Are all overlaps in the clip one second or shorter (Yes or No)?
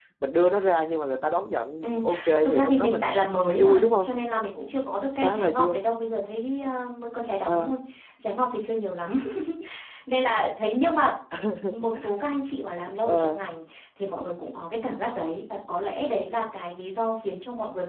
No